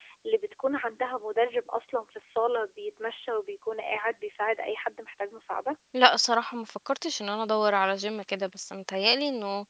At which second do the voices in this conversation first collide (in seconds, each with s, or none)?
none